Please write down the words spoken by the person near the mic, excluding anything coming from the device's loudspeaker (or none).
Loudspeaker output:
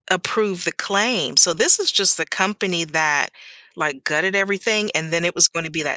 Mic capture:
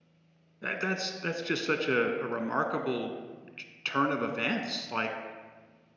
That that's that's just such a a remarkable t turn of events, like,